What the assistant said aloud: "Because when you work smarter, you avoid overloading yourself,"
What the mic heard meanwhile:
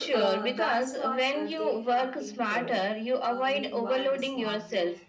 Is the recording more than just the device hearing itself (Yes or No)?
Yes